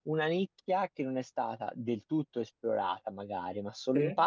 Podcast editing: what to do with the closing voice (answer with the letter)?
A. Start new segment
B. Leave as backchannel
B